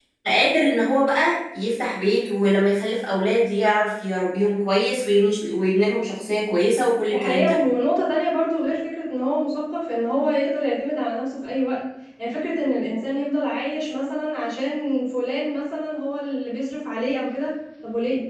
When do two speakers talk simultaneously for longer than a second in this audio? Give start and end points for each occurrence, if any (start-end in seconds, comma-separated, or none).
none